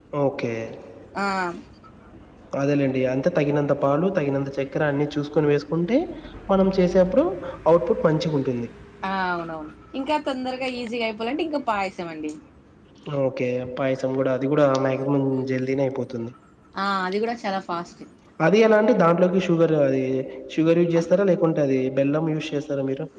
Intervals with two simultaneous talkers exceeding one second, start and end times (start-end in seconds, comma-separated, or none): none